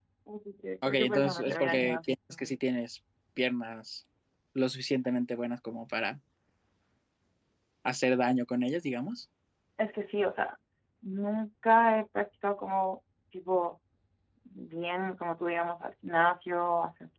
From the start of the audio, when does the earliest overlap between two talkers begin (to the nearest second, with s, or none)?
1 s